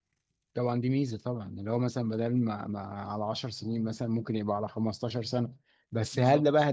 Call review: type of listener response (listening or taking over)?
listening